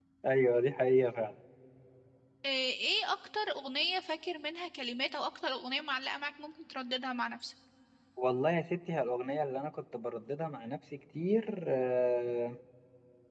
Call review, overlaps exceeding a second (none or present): none